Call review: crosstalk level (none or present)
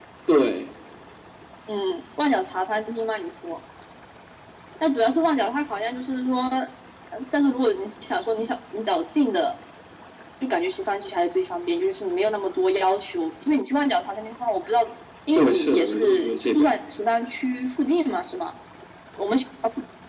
present